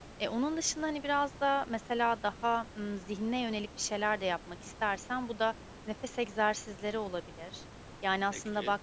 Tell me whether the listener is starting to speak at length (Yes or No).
No